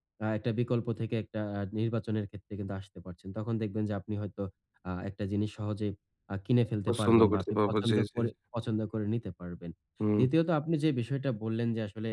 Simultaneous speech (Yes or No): Yes